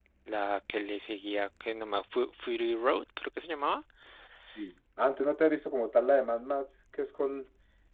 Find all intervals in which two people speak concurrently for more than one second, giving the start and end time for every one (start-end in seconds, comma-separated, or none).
none